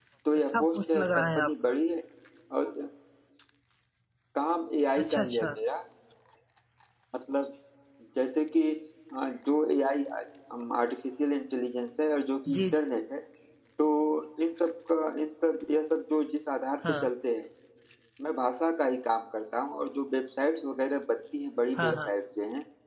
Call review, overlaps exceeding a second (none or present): present